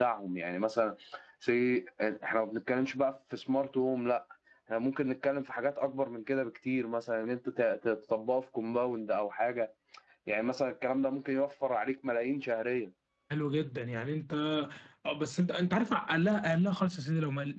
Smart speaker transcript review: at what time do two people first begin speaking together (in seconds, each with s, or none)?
none